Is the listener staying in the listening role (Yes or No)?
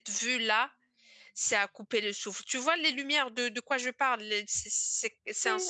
No